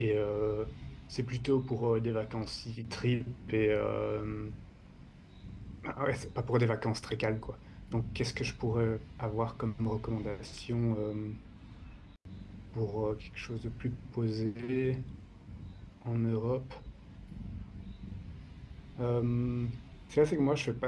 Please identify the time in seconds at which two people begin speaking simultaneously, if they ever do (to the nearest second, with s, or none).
none